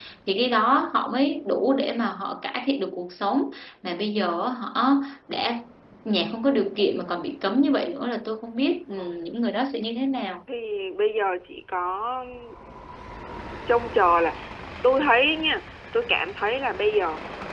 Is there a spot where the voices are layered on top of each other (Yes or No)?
No